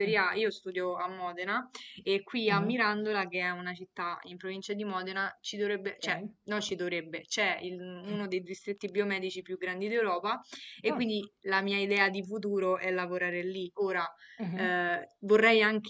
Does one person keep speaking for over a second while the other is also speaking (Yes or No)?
No